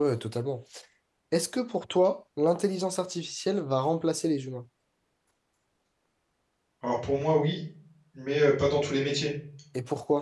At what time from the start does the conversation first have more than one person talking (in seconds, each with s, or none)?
none